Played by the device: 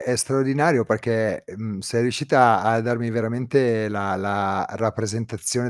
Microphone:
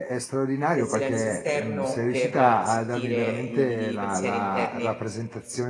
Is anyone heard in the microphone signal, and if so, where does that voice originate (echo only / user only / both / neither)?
both